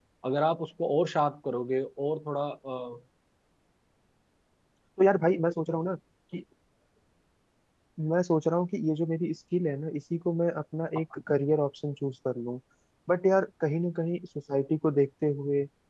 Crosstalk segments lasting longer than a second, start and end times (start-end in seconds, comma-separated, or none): none